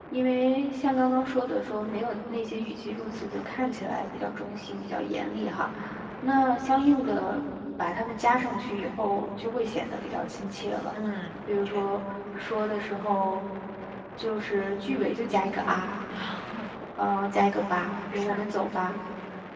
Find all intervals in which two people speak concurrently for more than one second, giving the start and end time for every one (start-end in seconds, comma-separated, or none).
none